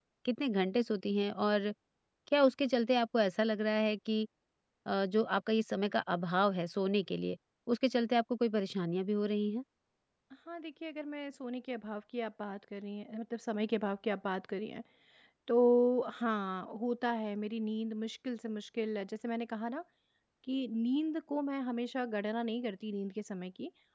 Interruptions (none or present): none